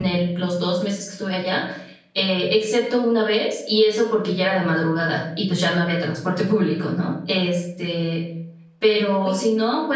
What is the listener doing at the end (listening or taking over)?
listening